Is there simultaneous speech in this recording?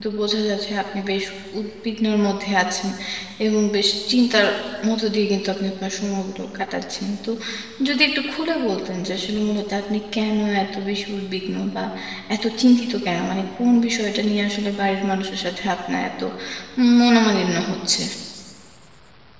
No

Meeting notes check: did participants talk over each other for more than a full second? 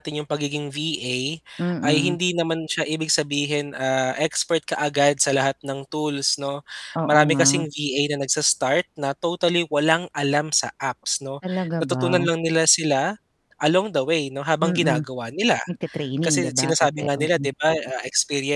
Yes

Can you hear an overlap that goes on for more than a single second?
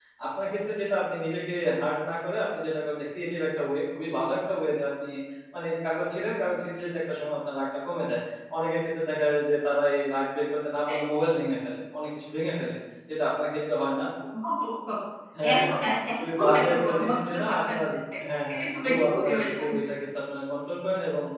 Yes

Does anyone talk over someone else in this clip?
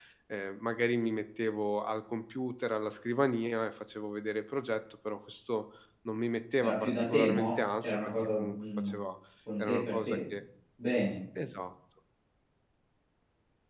Yes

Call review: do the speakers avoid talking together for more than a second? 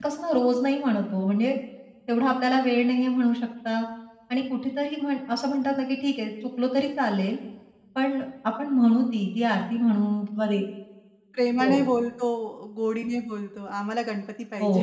Yes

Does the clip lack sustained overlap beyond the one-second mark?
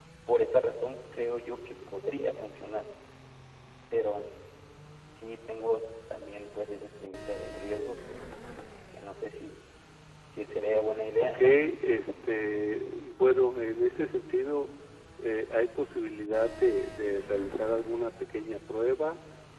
Yes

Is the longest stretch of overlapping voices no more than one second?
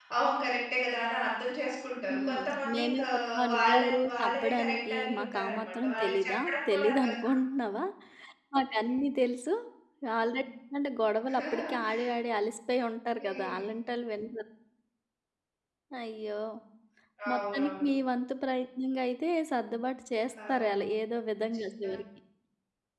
No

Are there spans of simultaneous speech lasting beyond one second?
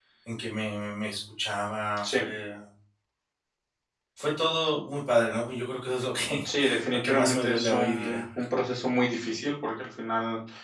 Yes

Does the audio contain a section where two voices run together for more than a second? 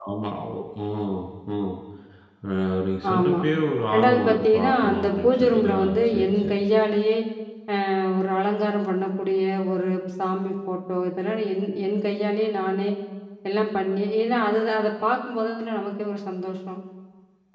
Yes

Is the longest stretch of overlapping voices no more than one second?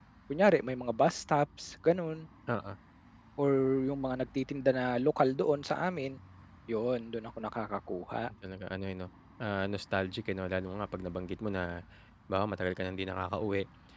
Yes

